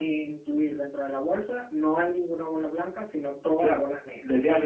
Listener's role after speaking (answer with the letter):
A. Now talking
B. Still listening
A